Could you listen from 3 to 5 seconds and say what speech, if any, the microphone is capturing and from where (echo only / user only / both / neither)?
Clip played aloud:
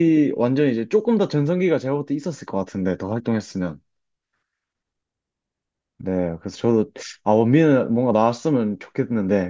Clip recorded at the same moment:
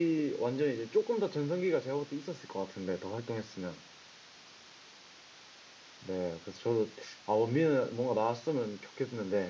echo only